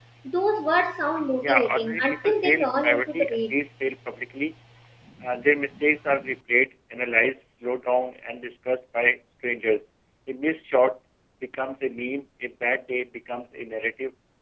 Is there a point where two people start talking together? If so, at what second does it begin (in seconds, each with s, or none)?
1.4 s